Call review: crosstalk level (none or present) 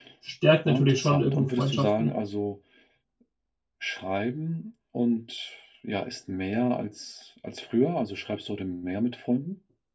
present